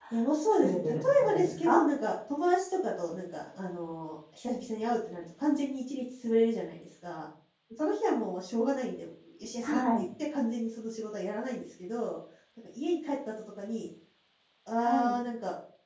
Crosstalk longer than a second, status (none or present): present